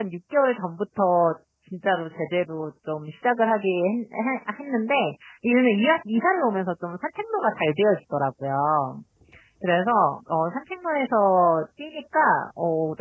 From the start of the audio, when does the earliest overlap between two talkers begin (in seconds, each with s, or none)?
none